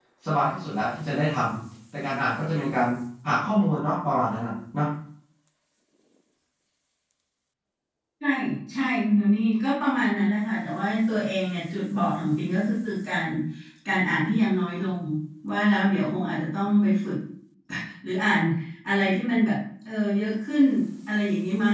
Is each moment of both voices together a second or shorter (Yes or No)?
Yes